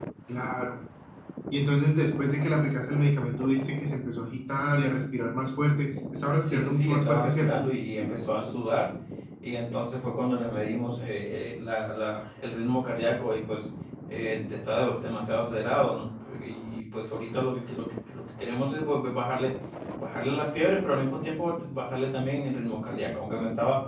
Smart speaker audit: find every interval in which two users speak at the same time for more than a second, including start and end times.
6.4-7.6

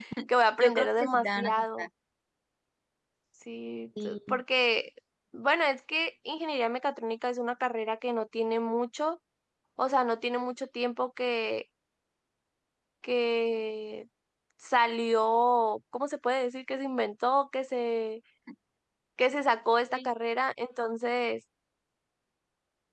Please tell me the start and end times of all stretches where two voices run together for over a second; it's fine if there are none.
0.6-1.9

